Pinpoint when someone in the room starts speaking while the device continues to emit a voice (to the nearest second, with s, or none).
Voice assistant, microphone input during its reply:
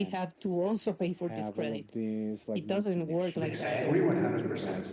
3 s